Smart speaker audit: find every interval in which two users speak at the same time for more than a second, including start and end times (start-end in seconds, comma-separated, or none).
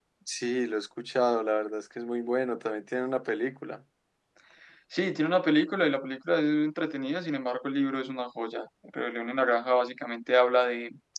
none